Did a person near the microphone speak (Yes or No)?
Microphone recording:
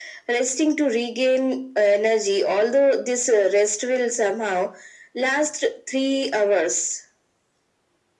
No